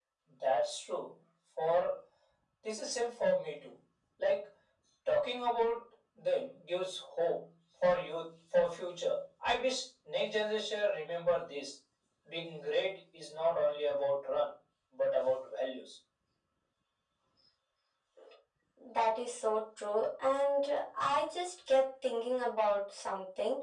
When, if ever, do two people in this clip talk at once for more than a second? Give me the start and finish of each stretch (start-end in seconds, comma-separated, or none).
none